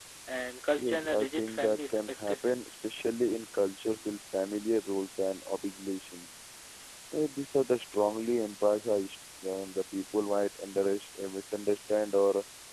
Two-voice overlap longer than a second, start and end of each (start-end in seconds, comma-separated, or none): 0.8-2.6